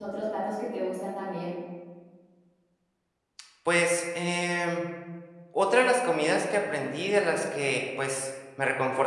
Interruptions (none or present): none